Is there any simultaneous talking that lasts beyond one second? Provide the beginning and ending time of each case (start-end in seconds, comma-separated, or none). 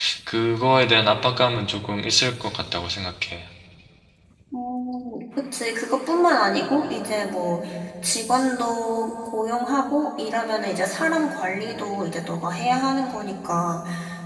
none